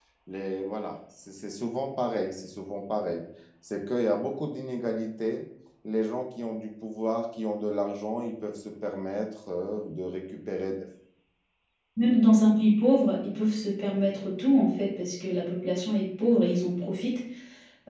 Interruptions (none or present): none